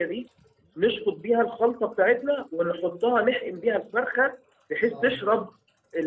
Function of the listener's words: listening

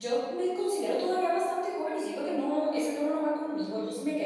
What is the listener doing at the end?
listening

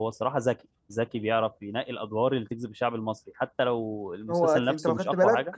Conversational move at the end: taking over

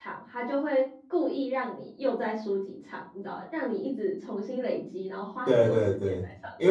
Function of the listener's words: taking over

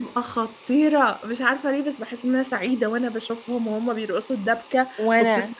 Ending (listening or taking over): listening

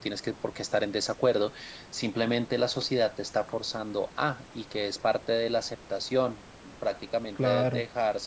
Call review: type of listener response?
listening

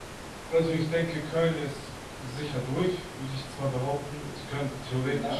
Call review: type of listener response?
listening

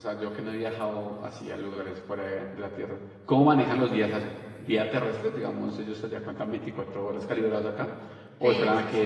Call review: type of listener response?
taking over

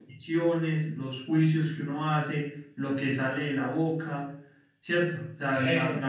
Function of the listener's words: listening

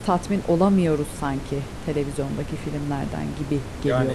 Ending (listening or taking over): taking over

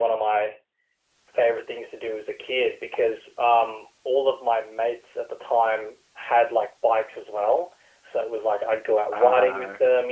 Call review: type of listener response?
listening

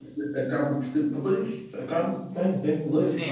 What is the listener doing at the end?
taking over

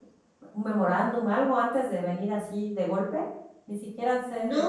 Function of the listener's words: taking over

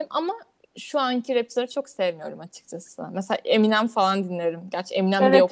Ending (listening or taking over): taking over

